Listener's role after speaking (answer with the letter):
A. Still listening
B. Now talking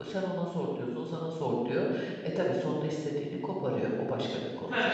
B